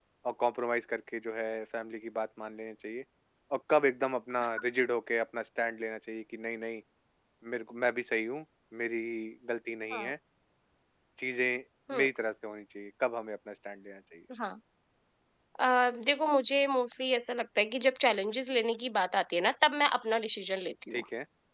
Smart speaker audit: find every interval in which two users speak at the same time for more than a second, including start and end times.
none

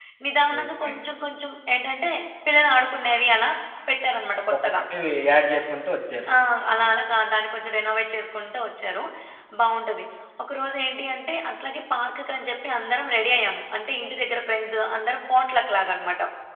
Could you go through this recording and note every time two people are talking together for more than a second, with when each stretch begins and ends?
none

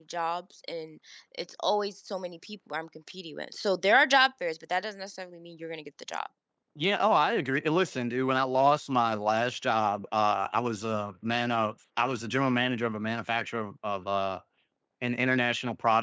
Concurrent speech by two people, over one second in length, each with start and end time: none

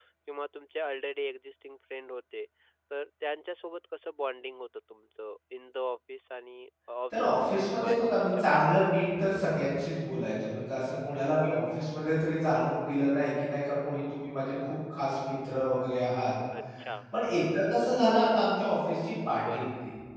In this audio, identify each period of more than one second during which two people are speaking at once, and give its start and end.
7.1-8.7

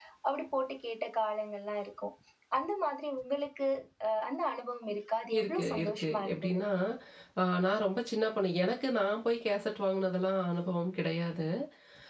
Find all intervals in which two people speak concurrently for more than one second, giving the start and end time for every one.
5.4-6.6

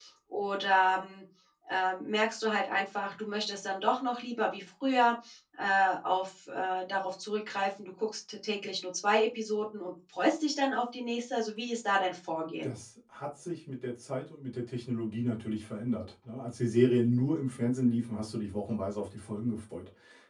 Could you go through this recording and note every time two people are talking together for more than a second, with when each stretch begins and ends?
none

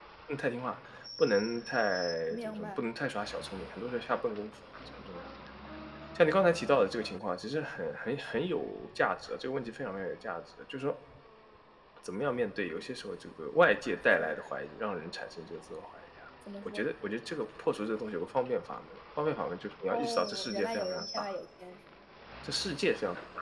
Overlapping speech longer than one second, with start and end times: 19.9-21.2

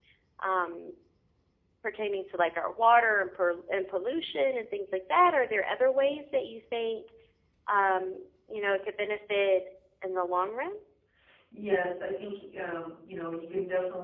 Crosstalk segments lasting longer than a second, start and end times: none

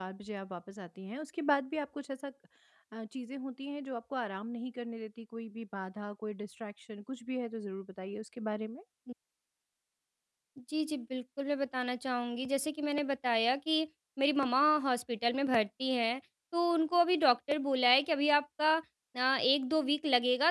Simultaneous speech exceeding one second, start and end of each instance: none

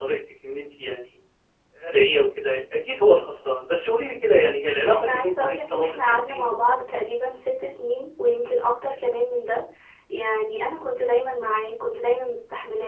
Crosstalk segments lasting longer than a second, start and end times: 4.9-6.5

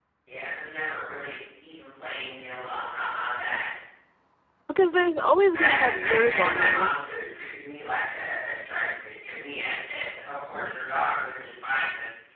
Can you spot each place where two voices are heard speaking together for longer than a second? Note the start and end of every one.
5.6-6.9

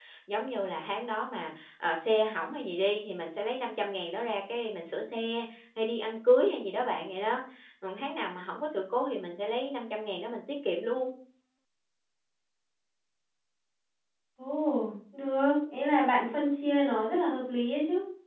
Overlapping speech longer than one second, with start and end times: none

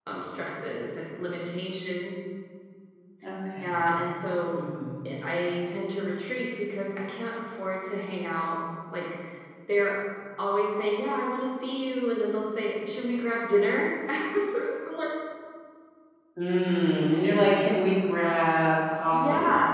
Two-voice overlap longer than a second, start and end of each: none

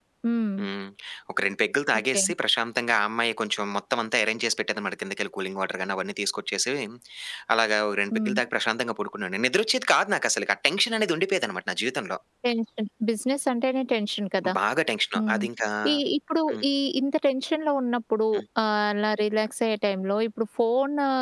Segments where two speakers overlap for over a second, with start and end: none

